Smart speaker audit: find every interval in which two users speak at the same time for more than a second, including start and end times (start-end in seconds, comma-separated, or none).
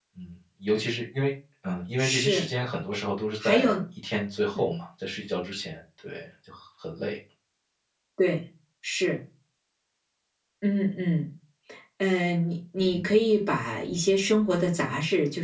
none